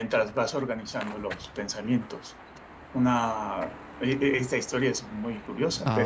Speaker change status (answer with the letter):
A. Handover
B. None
B